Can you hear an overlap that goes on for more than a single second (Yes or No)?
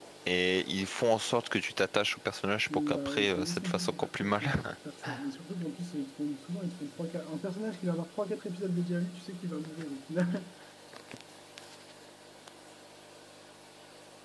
Yes